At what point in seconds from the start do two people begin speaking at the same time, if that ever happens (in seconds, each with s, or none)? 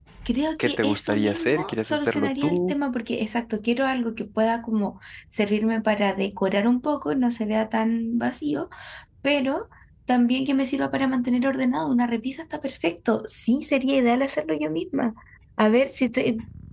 0.6 s